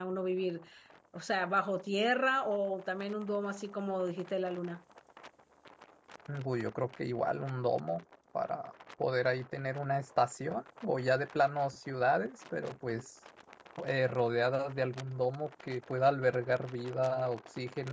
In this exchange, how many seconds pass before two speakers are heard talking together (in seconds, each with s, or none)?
none